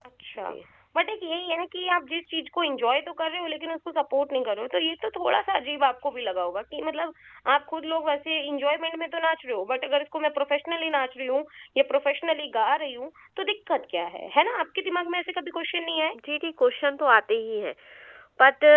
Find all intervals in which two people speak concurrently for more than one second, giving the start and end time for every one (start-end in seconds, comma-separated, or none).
none